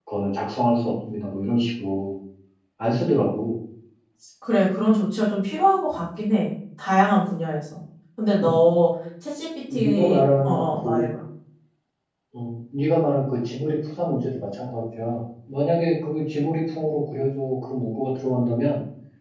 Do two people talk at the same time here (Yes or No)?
Yes